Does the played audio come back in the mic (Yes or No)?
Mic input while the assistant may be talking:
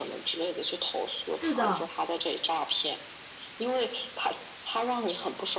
Yes